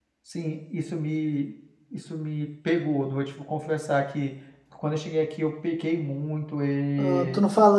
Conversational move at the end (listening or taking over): taking over